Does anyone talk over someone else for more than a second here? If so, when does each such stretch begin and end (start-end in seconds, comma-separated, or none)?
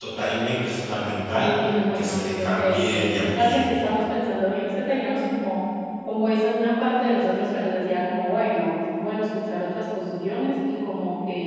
1.9-3.7